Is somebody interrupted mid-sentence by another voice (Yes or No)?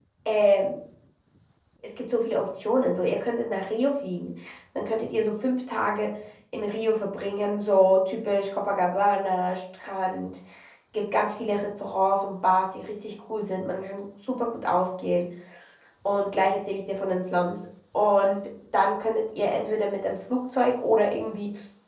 No